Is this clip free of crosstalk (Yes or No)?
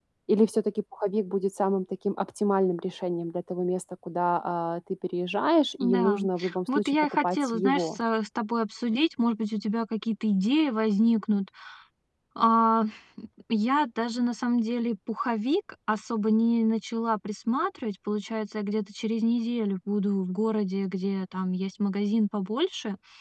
No